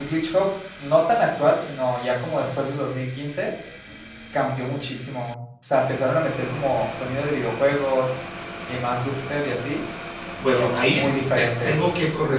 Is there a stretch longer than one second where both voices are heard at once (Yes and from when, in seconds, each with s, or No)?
Yes, from 10.5 s